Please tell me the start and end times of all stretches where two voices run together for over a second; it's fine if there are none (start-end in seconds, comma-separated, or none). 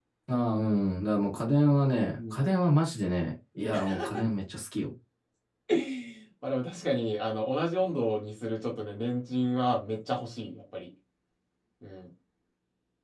none